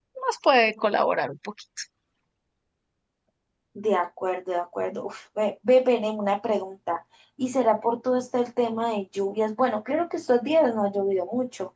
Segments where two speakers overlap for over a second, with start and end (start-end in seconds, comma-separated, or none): none